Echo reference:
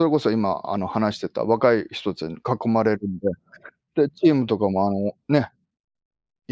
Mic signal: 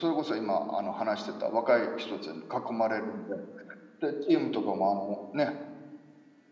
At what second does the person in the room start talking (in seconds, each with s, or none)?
none